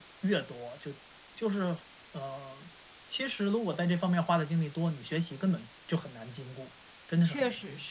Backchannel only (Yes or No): No